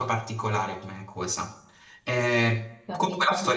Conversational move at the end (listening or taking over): listening